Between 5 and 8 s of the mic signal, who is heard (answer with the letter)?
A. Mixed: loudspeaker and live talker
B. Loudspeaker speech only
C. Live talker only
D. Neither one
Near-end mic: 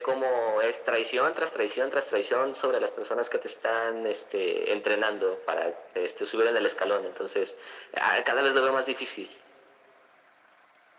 B